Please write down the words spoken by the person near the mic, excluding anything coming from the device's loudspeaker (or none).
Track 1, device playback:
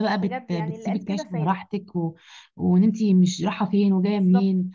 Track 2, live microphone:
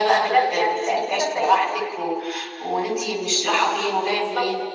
none